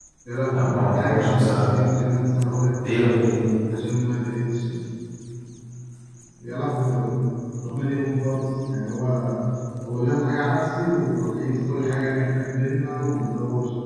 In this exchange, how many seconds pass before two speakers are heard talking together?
0.5 s

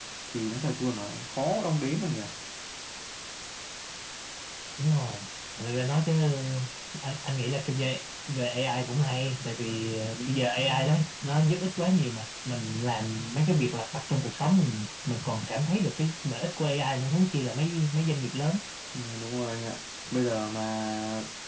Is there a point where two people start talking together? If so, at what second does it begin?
none

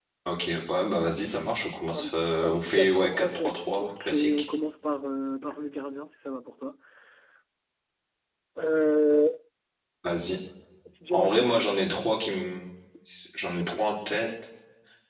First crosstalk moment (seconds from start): 1.9 s

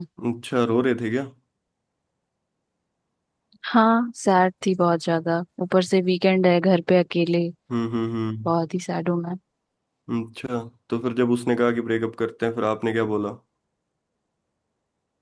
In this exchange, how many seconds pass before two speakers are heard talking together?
none

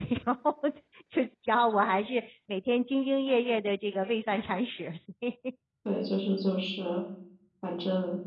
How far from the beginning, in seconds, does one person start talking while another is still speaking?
none

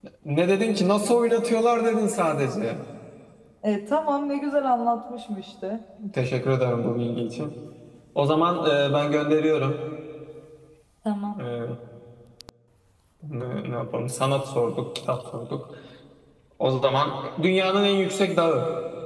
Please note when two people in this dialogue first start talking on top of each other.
none

